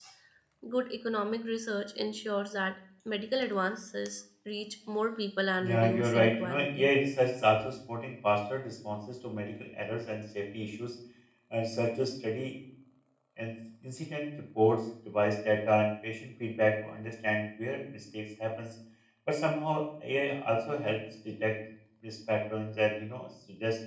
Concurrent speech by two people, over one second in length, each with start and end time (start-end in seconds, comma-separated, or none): 5.6-6.9